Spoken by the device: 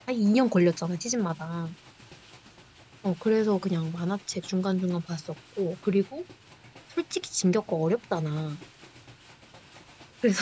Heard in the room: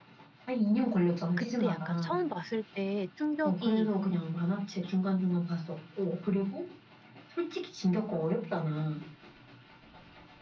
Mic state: both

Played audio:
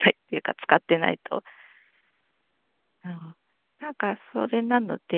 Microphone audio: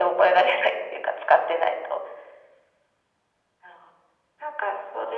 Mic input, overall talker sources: echo only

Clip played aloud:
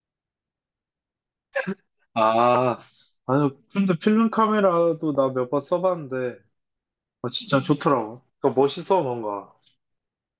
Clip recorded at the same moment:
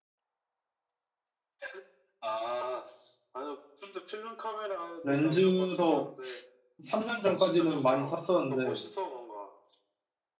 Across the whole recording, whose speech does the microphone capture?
both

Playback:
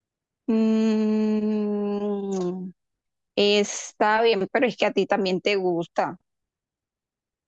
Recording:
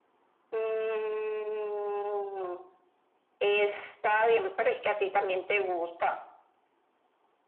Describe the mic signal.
echo only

